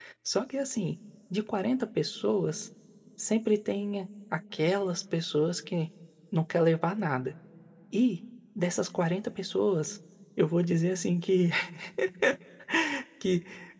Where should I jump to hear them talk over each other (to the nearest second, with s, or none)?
none